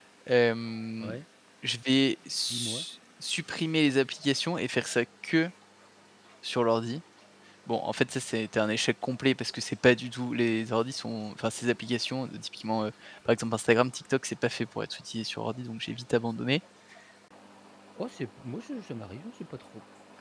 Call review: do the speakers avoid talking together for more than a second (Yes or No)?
Yes